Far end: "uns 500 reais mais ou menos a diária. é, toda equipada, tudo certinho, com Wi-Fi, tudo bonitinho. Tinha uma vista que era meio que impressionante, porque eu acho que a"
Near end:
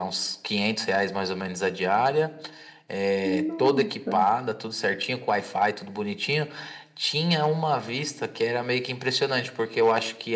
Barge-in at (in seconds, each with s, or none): 3.2 s